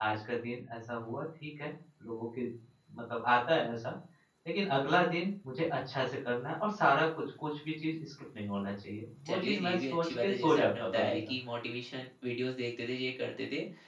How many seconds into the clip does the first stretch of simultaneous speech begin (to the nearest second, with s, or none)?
9 s